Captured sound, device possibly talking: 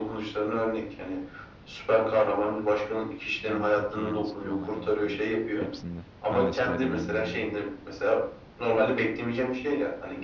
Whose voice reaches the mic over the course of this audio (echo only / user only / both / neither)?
both